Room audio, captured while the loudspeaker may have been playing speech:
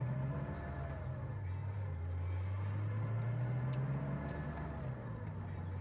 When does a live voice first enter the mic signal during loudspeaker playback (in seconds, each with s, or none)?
none